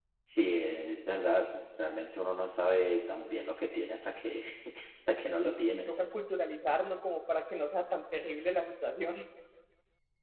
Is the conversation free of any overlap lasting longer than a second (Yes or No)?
Yes